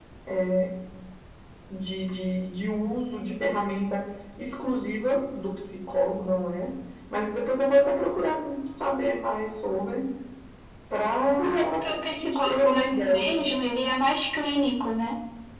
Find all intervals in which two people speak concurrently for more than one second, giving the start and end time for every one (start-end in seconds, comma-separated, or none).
11.6-13.3